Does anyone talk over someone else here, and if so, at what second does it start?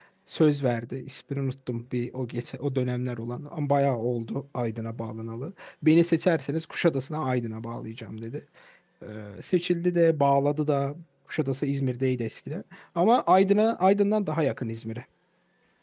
none

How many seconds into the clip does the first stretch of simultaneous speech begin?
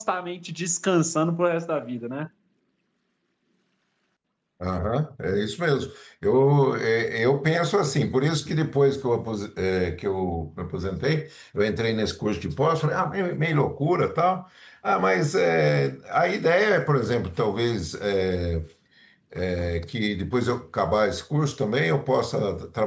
none

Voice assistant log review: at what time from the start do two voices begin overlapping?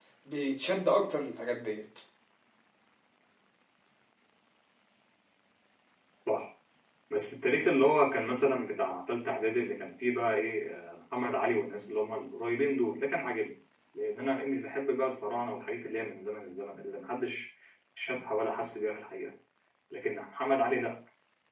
none

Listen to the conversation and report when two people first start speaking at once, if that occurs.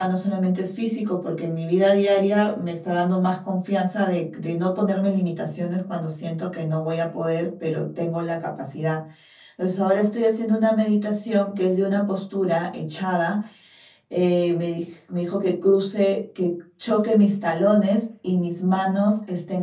none

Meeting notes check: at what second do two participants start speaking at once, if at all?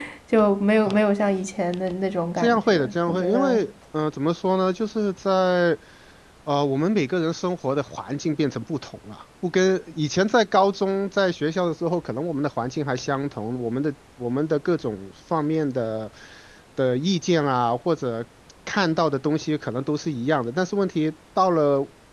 2.4 s

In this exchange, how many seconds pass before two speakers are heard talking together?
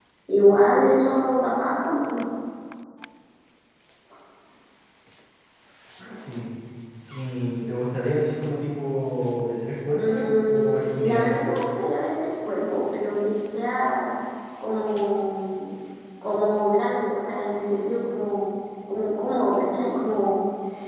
10.0 s

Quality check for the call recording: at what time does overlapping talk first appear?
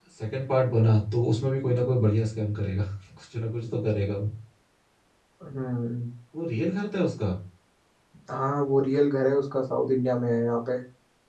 none

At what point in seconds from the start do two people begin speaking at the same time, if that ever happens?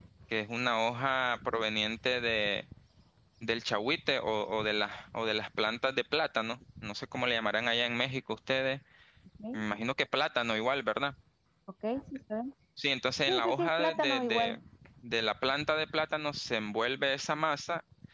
13.3 s

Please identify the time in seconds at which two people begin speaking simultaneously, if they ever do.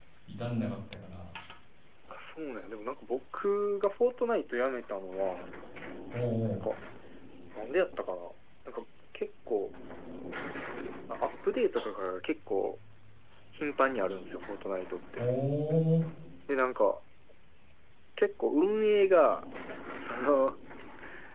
none

